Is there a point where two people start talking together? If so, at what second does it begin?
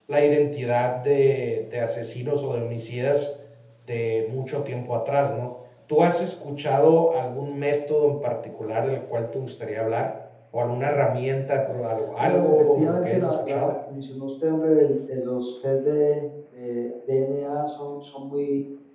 12.2 s

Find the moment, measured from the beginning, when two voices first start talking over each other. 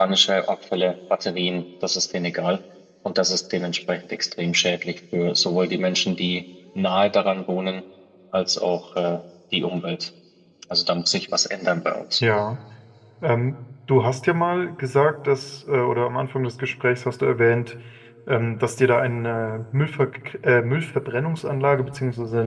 none

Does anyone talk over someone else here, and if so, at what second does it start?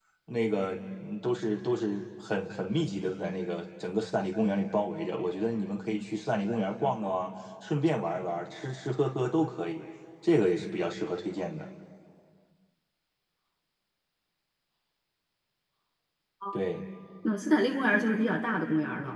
none

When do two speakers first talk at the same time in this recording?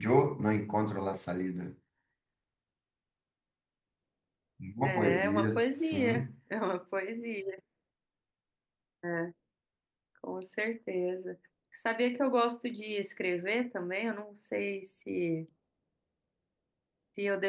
4.8 s

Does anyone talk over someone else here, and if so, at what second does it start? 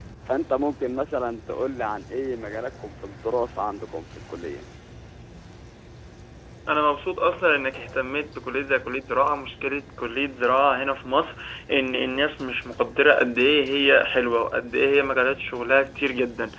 none

